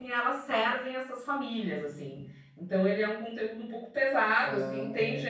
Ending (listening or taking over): listening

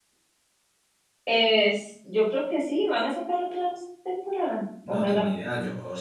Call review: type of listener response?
taking over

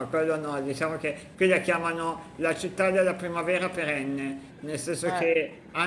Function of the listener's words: listening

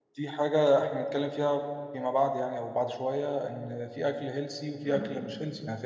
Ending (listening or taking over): listening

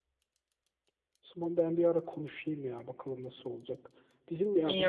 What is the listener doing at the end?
listening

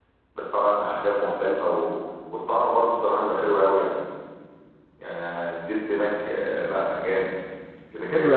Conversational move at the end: taking over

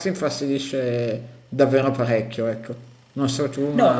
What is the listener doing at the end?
taking over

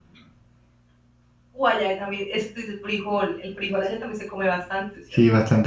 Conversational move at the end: taking over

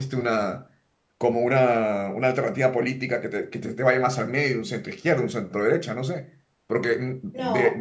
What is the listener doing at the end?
listening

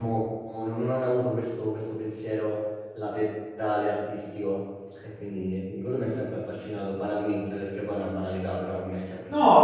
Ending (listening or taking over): taking over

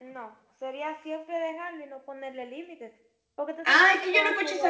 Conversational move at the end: taking over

